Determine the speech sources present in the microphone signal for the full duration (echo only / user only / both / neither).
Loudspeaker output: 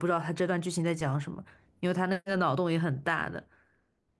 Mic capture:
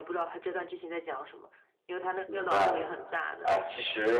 both